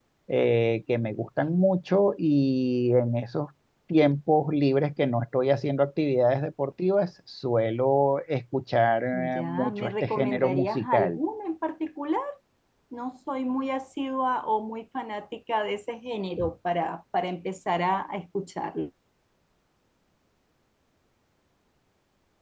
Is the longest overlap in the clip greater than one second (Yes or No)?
Yes